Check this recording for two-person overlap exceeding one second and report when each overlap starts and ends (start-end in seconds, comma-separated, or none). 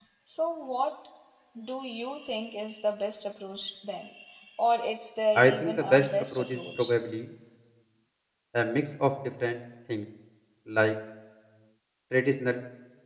5.3-6.9